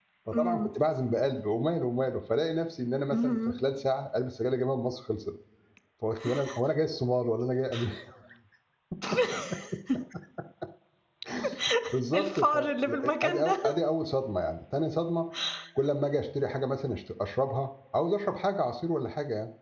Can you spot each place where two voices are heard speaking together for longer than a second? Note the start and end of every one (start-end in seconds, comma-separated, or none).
12.1-13.6